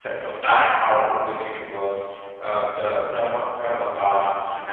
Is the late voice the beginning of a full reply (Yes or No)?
No